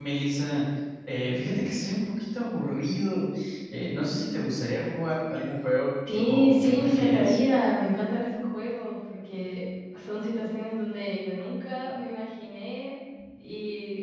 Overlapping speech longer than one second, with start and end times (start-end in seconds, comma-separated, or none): 6.1-7.4